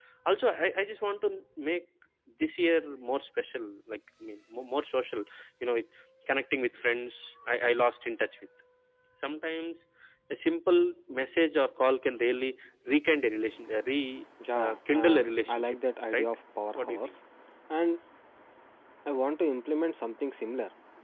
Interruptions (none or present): present